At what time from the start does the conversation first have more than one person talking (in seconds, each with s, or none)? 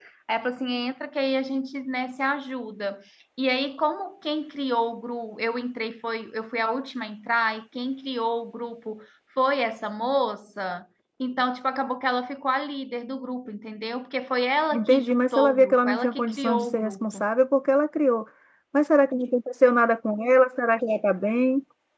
14.7 s